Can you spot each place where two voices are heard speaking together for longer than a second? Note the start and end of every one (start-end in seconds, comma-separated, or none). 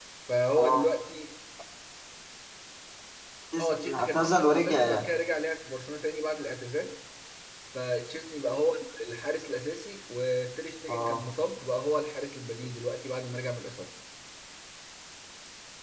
3.6-5.0